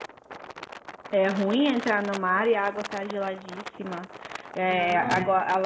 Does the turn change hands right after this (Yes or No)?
No